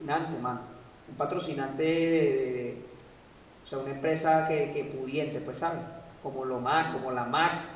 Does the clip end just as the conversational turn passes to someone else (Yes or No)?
No